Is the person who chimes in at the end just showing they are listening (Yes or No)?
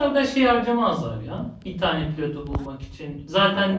Yes